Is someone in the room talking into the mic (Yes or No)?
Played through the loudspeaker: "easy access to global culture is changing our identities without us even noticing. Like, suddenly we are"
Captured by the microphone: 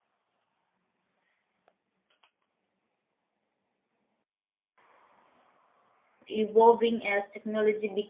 Yes